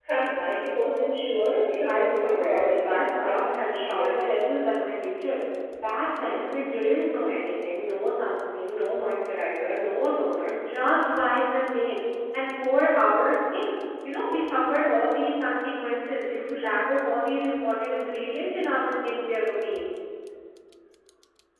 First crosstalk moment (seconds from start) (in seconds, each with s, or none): 1.8 s